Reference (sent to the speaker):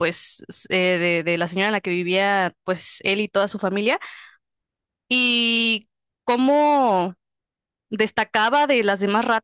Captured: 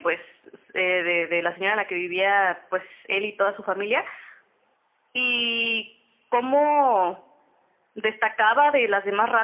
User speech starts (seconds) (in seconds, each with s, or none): none